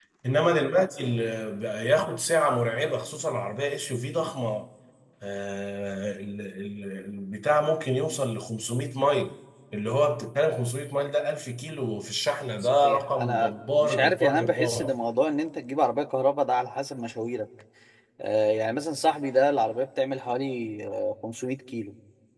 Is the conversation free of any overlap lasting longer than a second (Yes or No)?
No